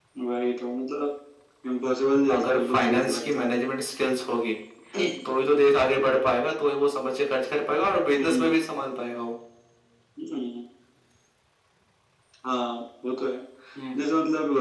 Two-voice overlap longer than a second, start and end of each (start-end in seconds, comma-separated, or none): 2.3-3.5